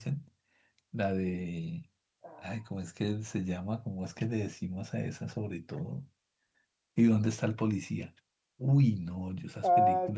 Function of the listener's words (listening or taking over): listening